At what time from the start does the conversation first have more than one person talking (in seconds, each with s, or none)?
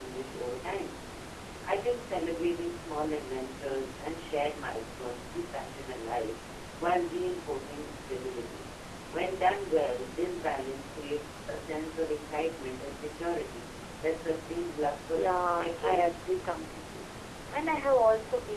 15.1 s